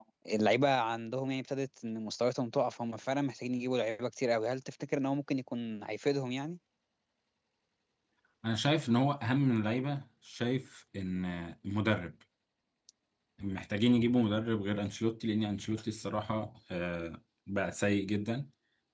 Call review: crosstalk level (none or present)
none